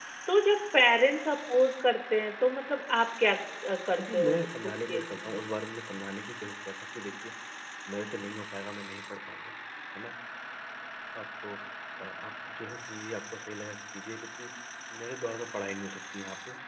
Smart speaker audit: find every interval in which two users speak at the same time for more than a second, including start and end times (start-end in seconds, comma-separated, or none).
4.0-5.3